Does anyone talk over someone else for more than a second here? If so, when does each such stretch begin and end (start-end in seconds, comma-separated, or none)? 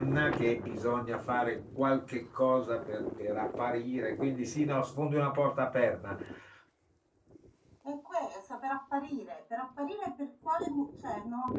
none